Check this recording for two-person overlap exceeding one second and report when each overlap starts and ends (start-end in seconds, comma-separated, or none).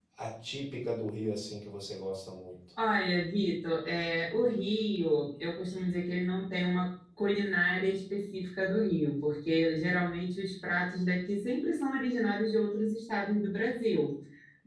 none